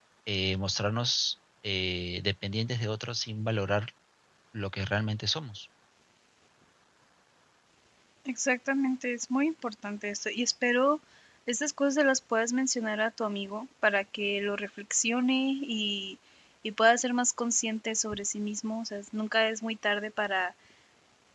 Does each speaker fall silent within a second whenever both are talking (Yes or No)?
Yes